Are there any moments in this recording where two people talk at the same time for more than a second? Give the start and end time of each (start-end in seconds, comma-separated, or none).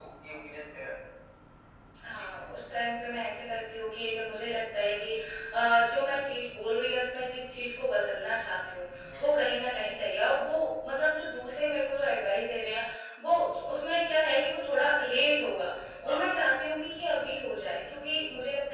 none